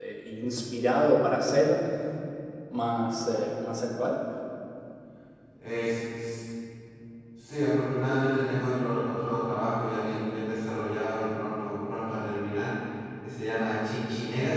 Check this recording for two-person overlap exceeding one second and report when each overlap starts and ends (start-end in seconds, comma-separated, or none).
none